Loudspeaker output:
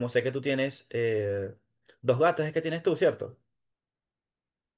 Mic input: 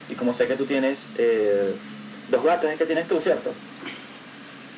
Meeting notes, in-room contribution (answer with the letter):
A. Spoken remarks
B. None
B